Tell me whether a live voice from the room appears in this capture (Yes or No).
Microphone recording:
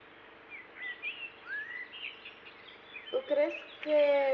Yes